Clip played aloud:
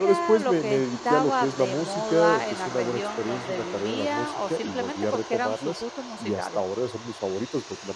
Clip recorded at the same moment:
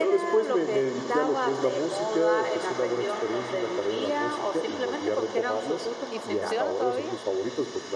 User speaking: Yes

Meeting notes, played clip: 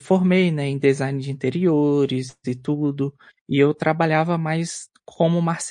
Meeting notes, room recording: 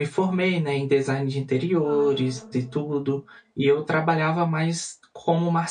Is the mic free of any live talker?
No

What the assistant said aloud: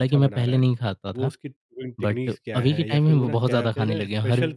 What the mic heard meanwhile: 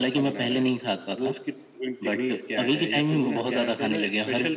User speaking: No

